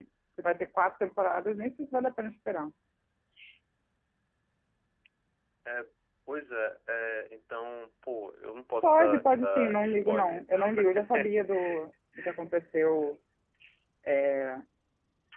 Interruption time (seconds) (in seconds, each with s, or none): 8.8 s